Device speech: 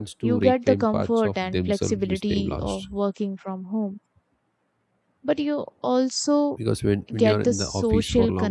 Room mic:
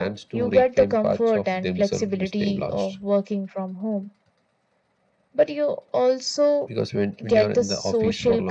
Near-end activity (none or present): none